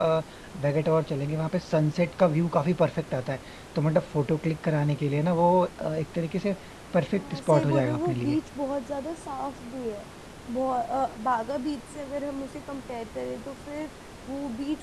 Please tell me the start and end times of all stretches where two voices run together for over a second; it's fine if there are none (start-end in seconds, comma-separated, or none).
7.2-8.4